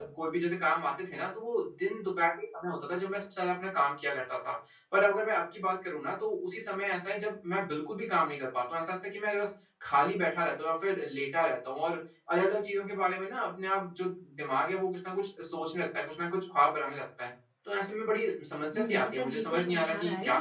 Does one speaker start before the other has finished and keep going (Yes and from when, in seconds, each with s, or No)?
Yes, from 18.7 s